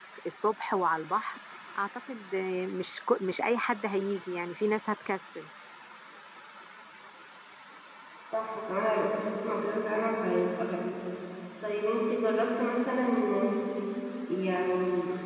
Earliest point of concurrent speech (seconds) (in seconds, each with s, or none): none